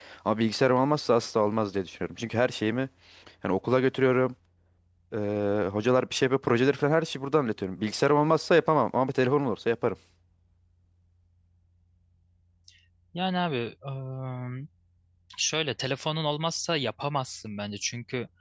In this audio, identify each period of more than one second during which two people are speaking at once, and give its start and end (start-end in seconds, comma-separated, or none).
none